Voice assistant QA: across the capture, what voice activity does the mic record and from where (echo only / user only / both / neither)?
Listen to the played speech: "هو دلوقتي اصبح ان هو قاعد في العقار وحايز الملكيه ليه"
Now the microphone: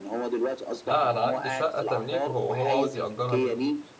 both